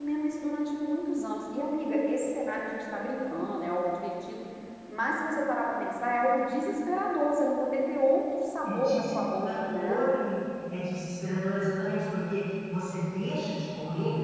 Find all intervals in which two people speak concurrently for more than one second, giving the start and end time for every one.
8.7-10.0

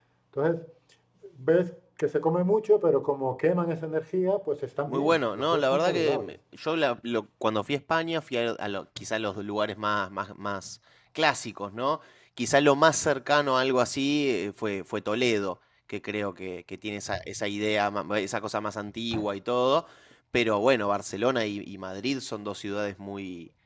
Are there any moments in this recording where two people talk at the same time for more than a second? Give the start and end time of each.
4.9-6.3

